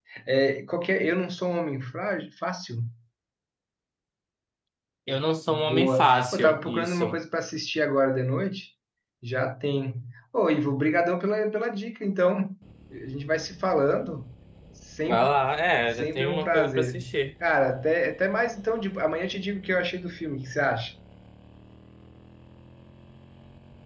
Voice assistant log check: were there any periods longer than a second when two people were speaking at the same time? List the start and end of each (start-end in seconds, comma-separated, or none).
5.5-7.2, 15.9-17.1